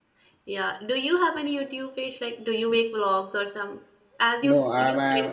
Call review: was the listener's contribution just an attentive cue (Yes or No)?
No